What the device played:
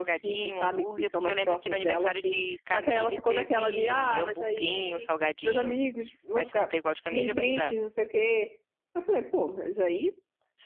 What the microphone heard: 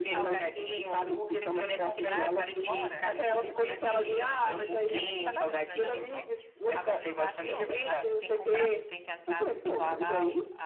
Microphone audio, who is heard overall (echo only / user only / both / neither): both